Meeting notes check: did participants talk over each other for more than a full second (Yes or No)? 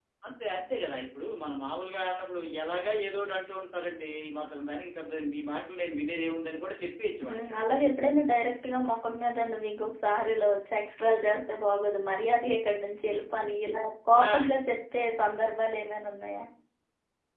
No